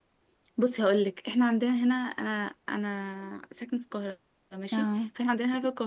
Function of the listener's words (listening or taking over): listening